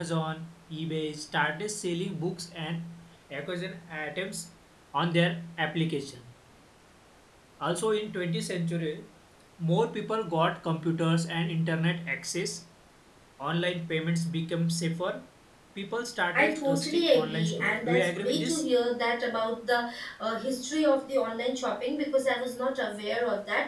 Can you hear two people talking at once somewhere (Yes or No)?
Yes